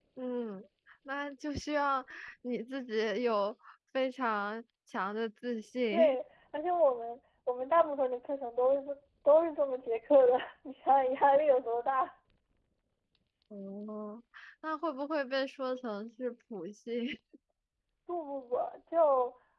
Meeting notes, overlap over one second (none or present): none